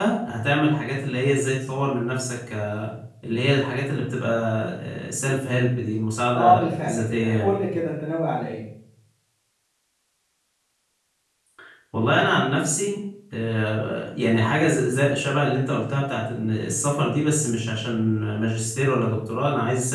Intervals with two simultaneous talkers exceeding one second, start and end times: 6.3-7.6

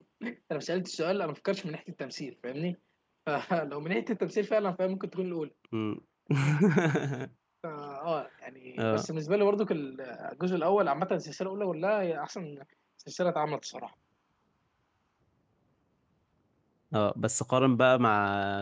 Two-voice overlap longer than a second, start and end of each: none

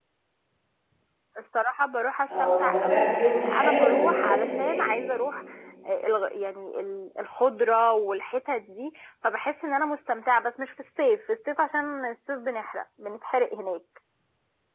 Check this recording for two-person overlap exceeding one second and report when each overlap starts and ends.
2.3-4.9

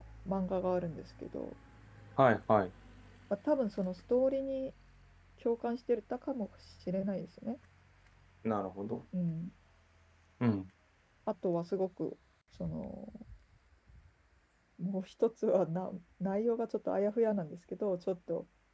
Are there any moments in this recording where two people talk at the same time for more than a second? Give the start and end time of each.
none

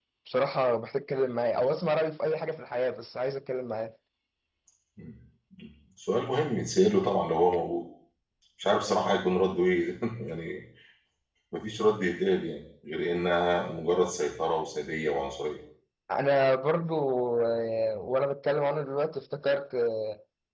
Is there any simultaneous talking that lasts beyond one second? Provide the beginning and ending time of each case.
none

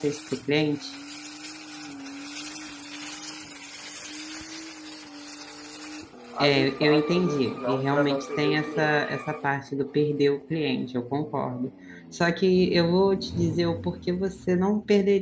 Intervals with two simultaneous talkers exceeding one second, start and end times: 6.4-9.1

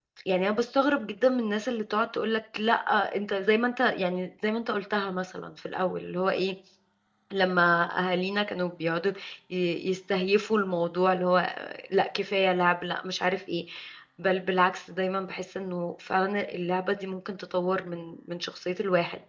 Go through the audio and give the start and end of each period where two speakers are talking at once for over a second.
none

